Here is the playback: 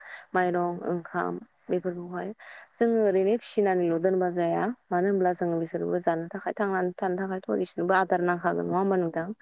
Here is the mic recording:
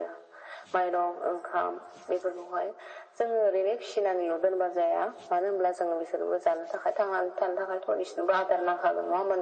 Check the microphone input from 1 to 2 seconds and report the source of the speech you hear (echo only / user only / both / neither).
echo only